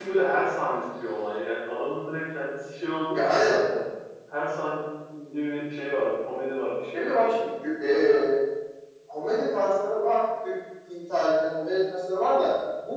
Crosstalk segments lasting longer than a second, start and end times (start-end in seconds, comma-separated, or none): none